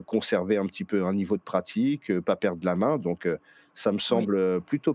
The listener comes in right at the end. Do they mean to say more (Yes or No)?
No